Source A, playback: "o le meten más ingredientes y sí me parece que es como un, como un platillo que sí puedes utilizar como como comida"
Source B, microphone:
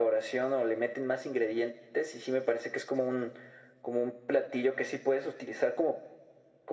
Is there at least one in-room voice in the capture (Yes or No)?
No